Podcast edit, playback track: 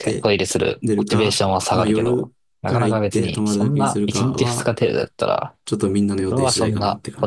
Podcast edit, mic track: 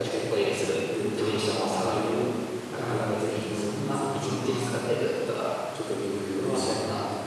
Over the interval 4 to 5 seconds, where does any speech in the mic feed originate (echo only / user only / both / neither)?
echo only